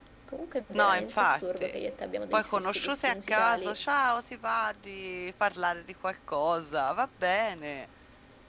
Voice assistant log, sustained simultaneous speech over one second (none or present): present